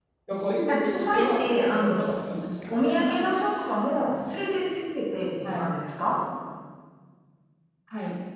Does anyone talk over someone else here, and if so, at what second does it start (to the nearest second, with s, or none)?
1 s